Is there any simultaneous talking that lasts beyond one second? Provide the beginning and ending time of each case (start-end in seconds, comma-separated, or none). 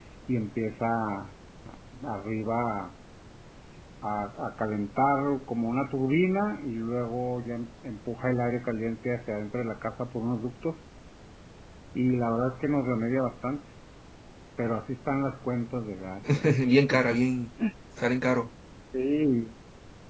none